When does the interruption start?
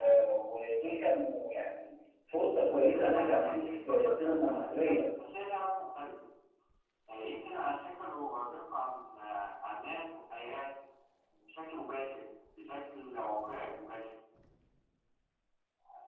3 s

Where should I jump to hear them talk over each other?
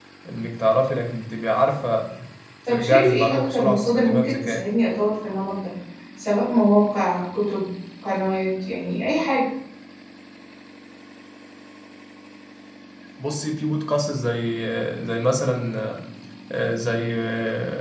3 s

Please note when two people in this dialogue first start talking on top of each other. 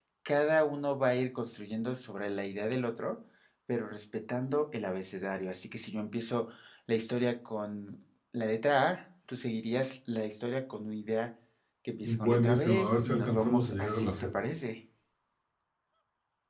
12 s

